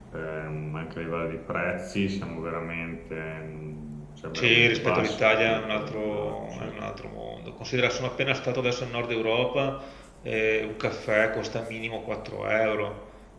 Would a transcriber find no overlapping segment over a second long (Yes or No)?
No